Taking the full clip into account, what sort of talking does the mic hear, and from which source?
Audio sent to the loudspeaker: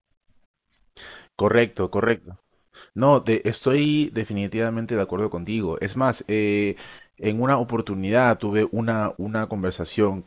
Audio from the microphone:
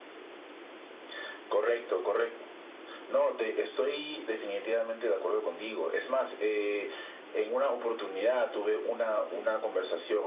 echo only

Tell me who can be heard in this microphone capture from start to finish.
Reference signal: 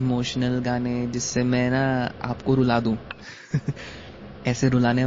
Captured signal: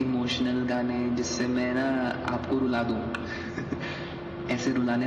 echo only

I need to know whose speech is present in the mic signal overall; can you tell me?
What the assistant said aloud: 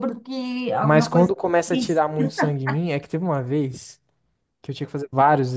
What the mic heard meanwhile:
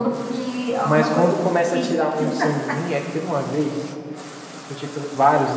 echo only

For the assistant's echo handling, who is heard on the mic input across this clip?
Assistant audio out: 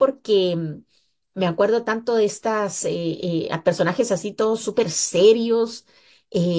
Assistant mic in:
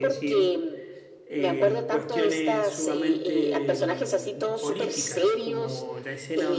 both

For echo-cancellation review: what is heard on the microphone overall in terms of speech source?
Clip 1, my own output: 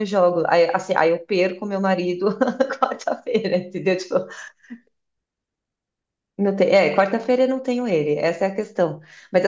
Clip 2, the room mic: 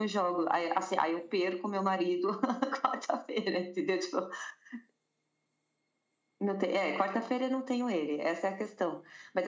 echo only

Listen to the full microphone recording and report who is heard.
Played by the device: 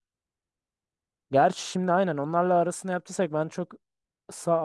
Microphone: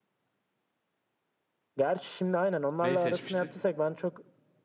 both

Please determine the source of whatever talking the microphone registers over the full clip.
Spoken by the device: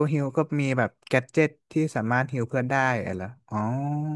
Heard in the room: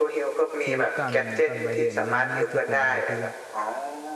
both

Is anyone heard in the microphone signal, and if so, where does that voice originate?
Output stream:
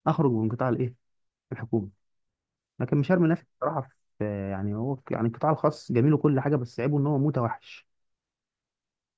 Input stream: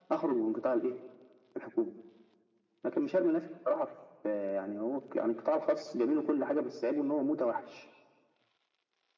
echo only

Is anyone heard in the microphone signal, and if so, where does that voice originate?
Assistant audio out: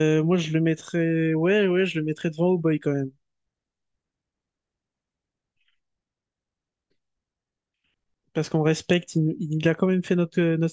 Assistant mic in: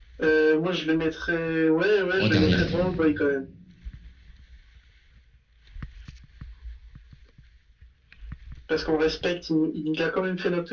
both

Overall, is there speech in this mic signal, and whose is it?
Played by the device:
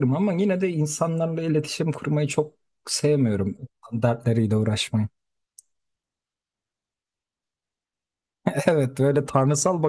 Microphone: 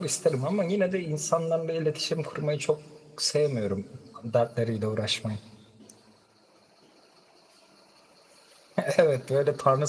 echo only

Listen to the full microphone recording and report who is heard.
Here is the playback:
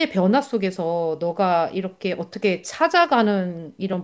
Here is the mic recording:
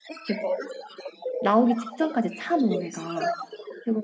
both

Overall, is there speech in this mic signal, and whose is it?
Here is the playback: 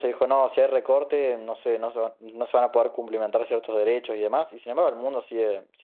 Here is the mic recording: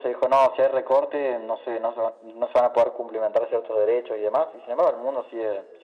echo only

